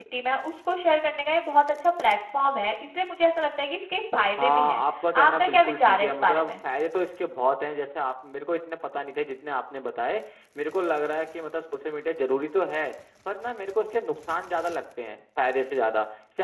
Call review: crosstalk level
present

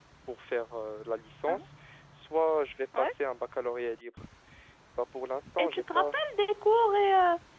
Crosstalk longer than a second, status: none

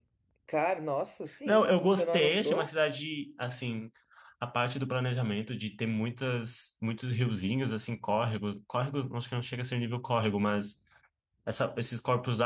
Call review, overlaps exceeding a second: present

